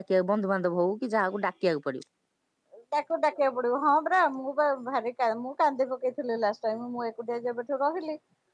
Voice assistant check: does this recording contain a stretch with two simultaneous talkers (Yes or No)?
No